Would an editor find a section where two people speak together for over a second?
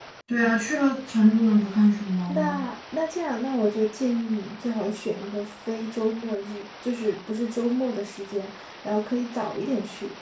No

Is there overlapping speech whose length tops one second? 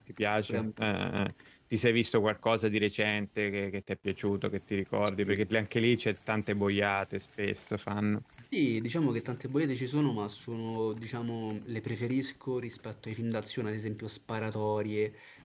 No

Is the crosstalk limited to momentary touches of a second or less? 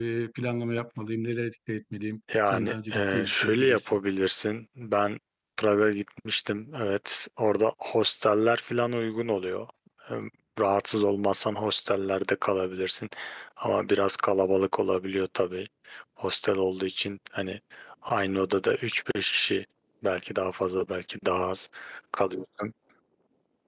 No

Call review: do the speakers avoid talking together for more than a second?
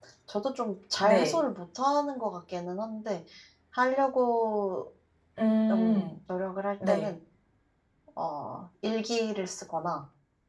Yes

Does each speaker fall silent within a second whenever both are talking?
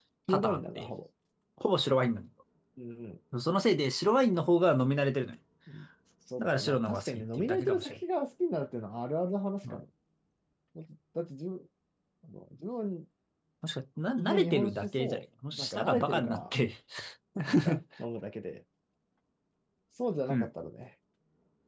No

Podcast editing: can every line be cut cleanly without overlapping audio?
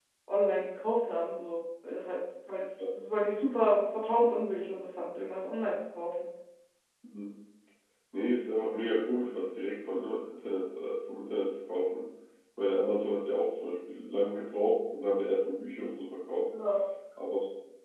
Yes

